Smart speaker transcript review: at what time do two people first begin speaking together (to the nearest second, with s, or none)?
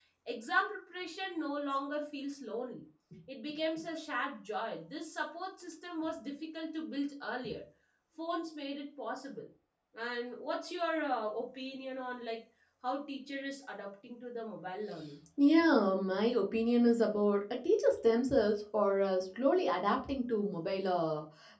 none